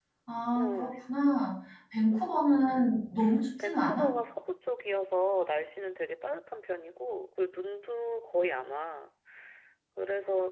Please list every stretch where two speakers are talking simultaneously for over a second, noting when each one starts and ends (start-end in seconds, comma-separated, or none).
none